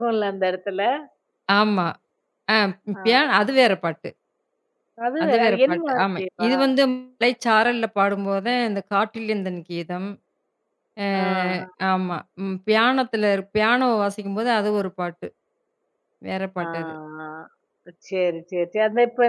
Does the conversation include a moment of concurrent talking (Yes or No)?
Yes